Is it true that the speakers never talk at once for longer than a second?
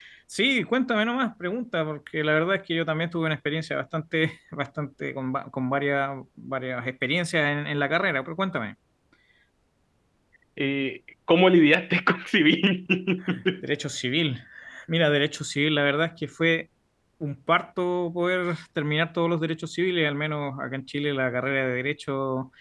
Yes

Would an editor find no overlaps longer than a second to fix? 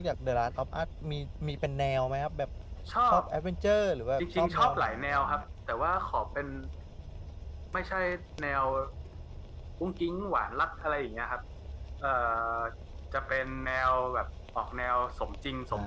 No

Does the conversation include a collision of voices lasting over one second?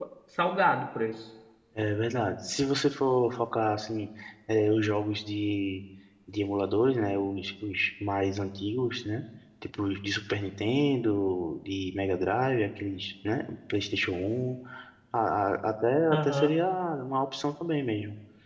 No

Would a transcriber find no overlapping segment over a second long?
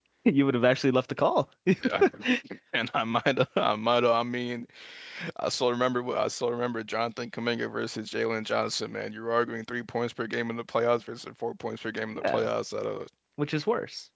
Yes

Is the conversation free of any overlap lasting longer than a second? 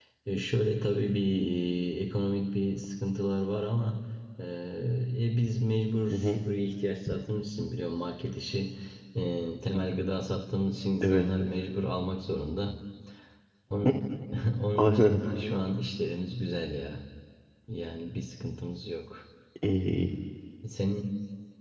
Yes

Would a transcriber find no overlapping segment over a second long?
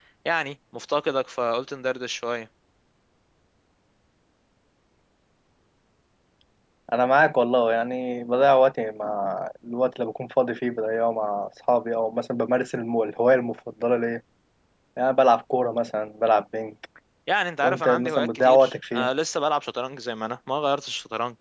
No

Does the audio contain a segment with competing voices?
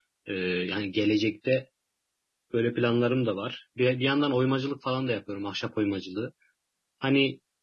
No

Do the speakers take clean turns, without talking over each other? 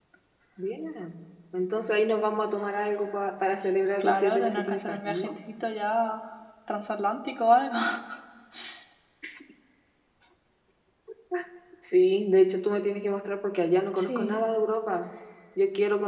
No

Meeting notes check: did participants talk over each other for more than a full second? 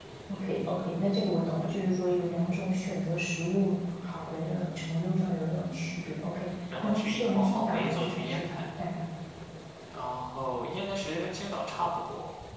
Yes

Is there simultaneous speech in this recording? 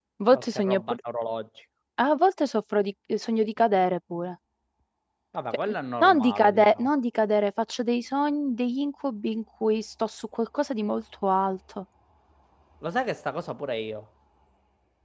Yes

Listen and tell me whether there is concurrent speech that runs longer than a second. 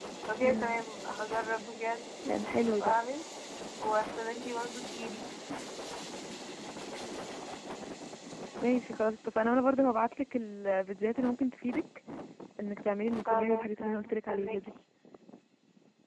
Yes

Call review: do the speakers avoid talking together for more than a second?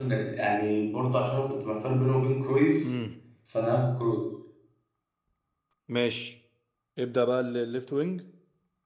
Yes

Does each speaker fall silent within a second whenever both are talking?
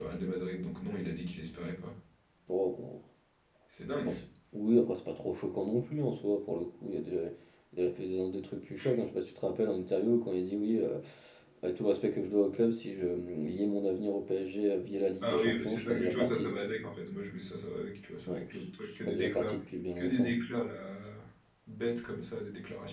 No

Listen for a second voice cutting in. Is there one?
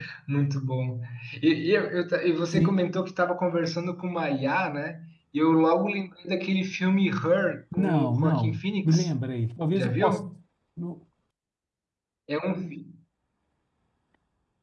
Yes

